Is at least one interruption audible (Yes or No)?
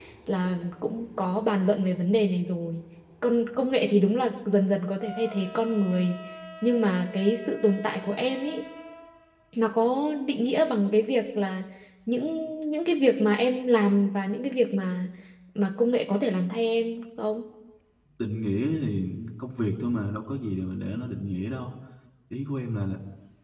No